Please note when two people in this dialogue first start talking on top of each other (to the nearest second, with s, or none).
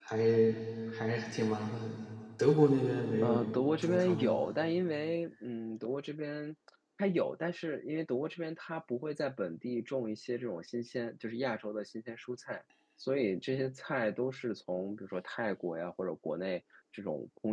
3 s